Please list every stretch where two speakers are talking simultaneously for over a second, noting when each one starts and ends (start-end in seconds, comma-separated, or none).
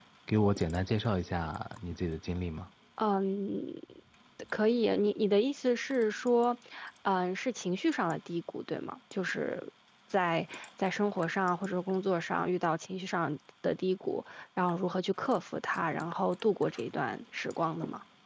none